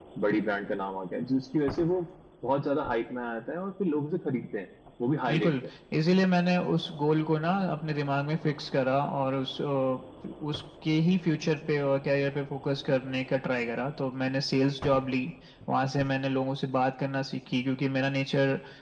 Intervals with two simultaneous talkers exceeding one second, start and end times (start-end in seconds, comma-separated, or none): none